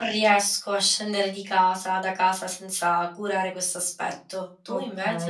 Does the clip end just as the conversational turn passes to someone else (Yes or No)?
Yes